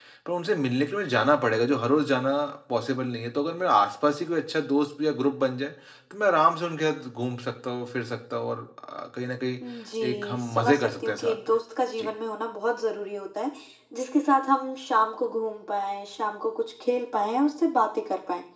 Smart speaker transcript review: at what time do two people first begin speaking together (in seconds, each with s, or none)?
10.1 s